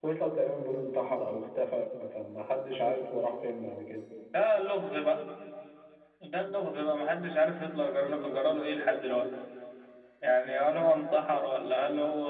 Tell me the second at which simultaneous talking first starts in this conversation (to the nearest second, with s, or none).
none